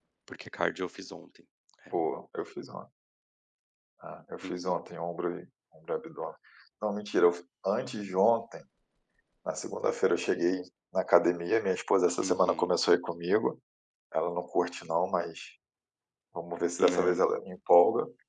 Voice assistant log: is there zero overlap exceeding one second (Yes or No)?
Yes